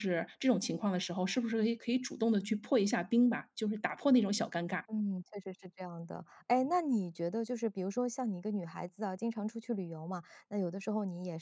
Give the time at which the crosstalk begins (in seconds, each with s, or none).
none